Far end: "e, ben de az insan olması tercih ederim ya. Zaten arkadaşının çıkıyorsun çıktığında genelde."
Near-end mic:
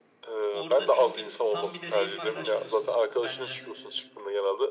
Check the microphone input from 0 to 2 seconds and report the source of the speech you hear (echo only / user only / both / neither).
both